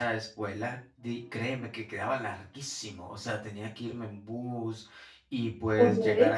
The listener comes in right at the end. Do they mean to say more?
No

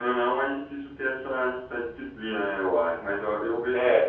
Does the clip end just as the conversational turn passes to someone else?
No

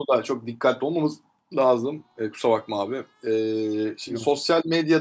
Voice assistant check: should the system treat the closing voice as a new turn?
No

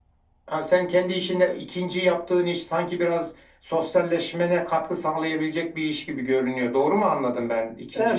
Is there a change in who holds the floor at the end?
Yes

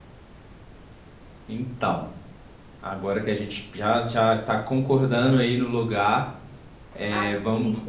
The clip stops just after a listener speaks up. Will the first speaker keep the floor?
No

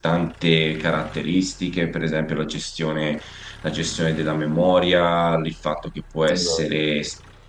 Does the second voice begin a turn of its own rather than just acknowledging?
No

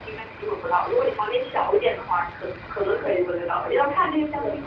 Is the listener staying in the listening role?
Yes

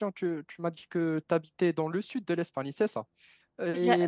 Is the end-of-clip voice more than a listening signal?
No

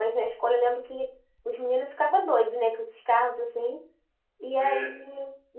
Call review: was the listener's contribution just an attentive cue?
Yes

